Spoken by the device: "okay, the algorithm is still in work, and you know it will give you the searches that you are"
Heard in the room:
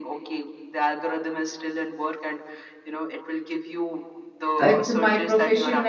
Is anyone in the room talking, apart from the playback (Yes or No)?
Yes